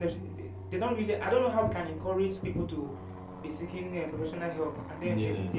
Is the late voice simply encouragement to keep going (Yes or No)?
Yes